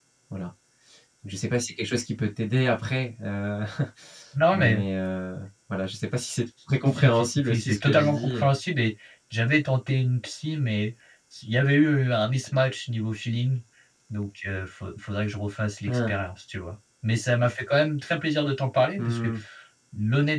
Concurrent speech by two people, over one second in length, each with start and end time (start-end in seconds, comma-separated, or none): 6.9-8.5